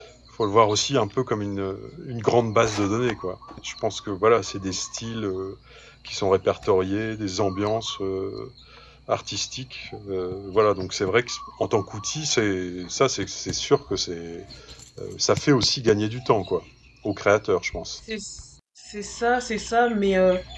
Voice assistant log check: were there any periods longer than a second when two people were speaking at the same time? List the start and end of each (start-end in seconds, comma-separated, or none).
none